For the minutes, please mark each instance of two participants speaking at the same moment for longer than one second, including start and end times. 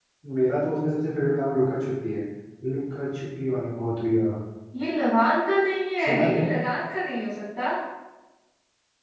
none

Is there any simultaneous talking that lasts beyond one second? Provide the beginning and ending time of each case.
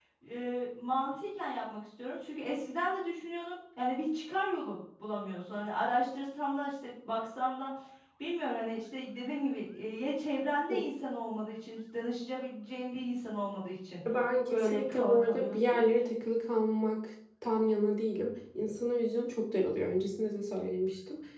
14.5-15.8

